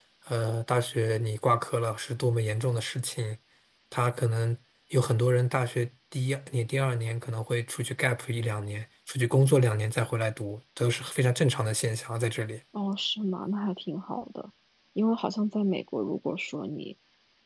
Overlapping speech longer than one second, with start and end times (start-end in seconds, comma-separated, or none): none